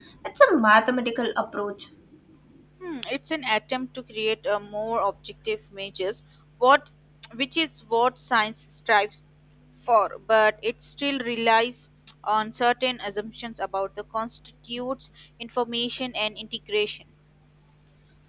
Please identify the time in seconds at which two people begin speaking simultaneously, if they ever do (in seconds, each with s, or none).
none